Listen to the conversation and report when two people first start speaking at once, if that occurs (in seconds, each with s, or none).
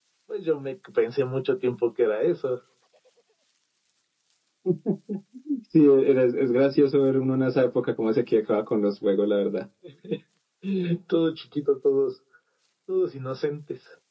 none